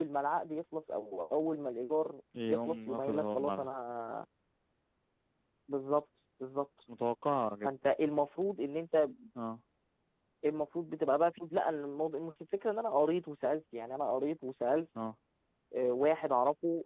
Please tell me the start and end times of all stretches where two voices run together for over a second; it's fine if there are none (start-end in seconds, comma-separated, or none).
2.5-3.7